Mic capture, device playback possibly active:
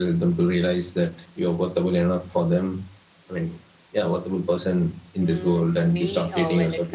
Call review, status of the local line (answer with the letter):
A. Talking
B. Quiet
A